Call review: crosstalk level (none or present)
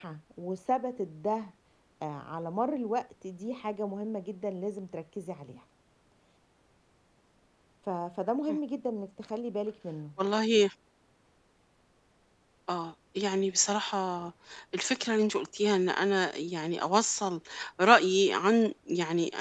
none